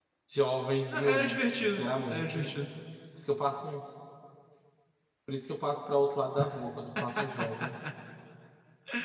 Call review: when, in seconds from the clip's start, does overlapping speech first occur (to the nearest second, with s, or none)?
1 s